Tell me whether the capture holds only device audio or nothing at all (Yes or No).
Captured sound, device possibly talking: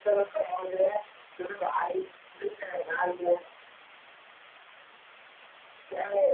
Yes